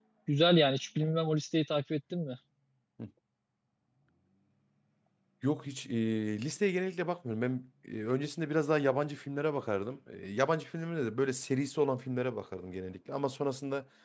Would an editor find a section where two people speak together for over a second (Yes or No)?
No